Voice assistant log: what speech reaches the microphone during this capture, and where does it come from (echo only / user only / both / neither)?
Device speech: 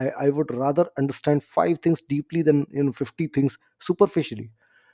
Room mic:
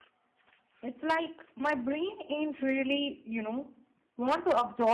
user only